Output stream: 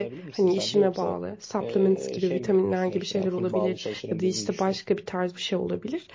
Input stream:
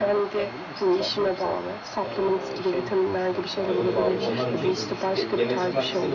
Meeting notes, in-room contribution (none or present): present